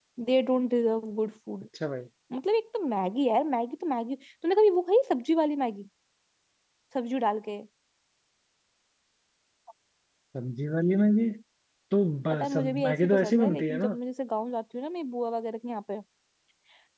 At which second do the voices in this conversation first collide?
12.3 s

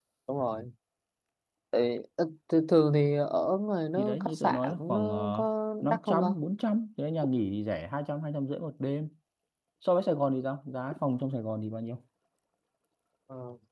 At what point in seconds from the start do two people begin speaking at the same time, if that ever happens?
4.0 s

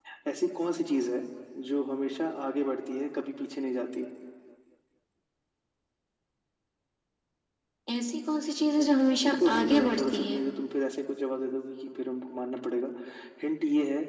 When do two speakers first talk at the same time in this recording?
8.8 s

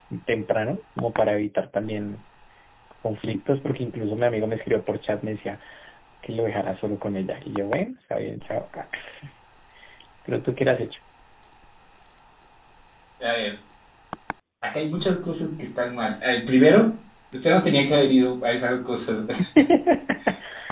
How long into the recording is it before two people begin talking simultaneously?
none

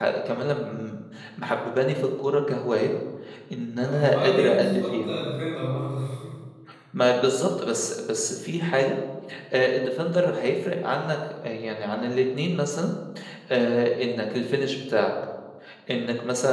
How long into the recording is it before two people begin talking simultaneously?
3.8 s

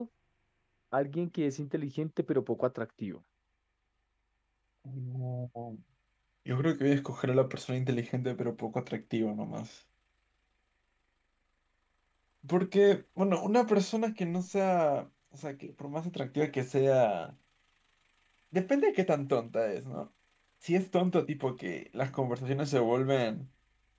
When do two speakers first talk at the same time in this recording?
none

